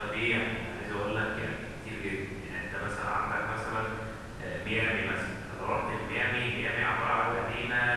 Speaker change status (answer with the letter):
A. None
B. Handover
A